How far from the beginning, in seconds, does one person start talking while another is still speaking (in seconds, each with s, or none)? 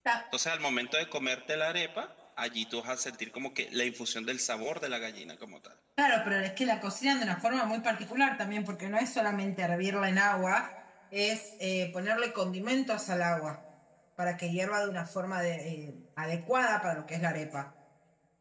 none